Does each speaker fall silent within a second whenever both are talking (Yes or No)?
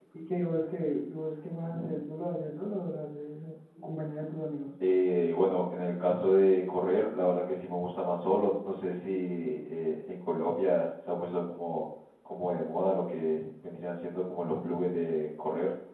Yes